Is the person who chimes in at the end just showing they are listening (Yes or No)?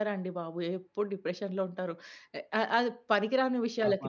No